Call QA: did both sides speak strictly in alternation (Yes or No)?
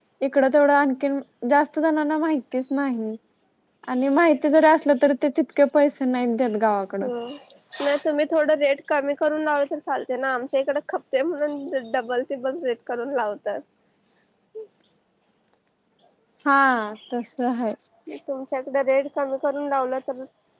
Yes